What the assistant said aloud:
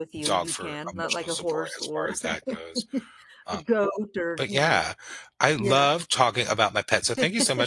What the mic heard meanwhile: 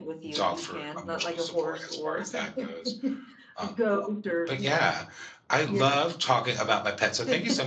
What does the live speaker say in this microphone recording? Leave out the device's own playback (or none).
none